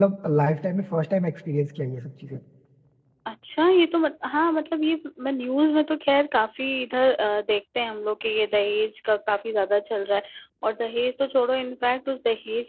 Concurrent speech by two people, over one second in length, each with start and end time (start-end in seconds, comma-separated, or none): none